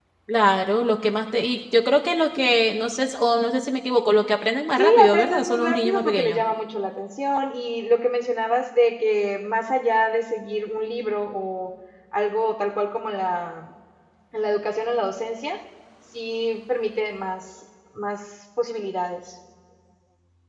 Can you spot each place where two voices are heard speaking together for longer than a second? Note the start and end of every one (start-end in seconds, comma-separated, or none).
4.8-6.4